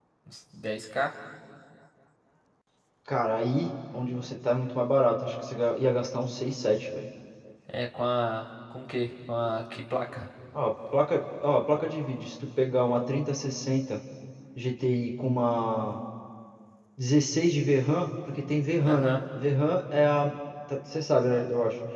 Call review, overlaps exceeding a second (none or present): none